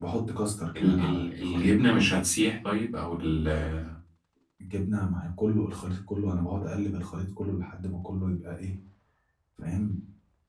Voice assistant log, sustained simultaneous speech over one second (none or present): present